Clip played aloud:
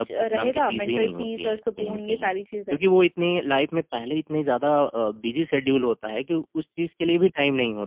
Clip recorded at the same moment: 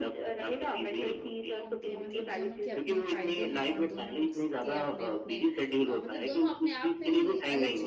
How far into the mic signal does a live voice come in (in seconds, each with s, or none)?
1.6 s